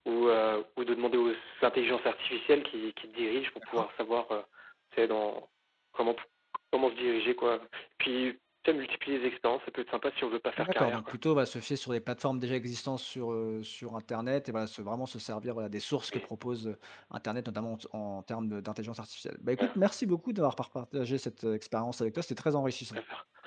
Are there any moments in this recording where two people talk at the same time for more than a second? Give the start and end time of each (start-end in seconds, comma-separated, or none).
none